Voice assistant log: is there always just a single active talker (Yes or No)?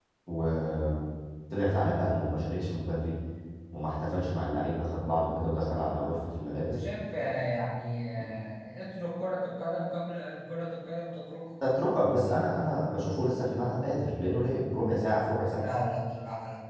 Yes